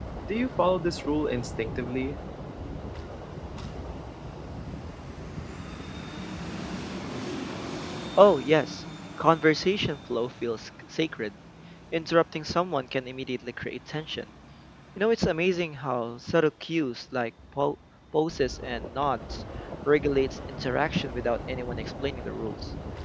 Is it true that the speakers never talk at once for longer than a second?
Yes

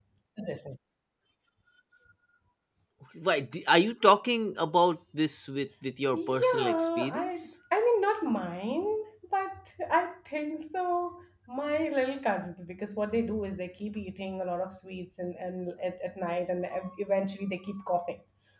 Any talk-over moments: Yes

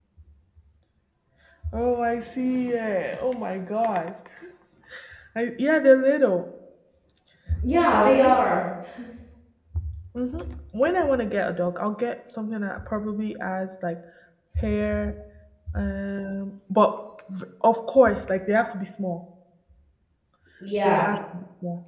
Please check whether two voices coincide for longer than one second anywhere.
No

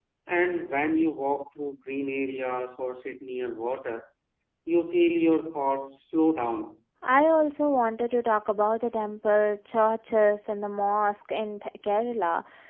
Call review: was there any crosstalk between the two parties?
No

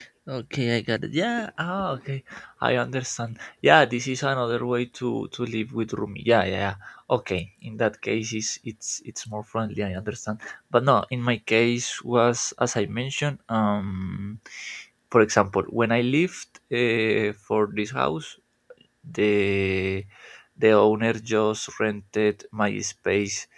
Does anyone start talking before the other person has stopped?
No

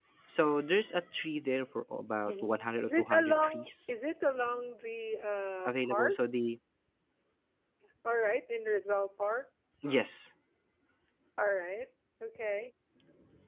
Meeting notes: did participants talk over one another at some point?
Yes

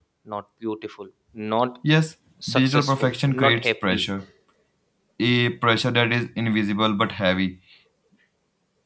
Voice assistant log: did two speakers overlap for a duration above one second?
Yes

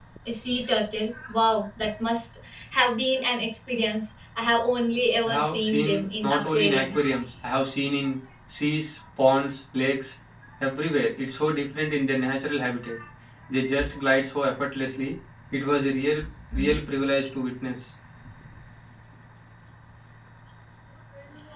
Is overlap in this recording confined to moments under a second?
No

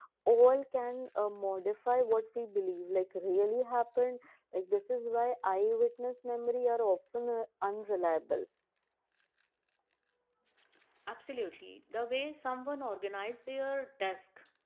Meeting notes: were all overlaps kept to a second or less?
Yes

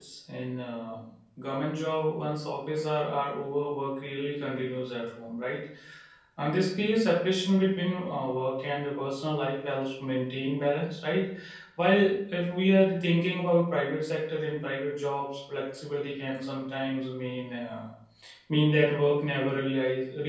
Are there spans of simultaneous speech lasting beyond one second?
No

